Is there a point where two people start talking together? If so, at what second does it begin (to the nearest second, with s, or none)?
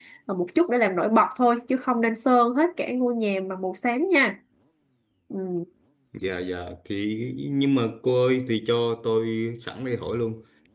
none